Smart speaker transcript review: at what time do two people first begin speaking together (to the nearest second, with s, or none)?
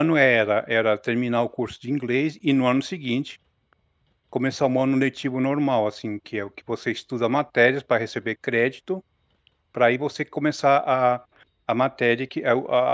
none